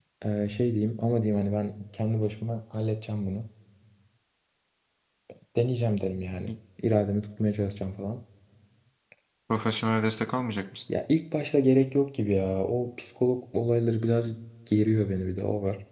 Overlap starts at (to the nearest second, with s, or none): none